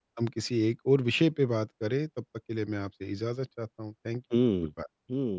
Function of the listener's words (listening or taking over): taking over